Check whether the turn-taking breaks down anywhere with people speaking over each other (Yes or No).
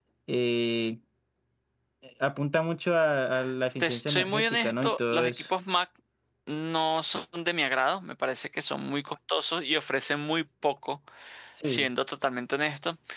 Yes